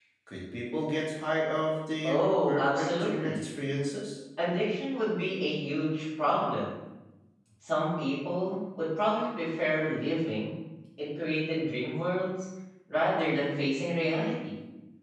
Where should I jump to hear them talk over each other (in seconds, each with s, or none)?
2.0 s